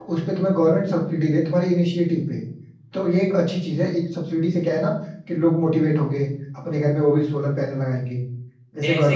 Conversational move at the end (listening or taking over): taking over